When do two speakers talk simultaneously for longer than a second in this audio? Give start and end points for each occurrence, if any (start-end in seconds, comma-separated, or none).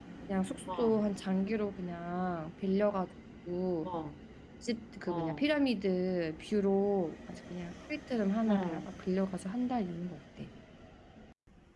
none